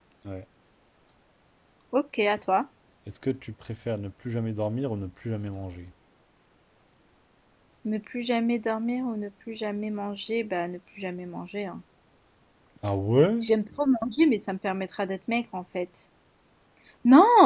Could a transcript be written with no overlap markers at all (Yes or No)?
Yes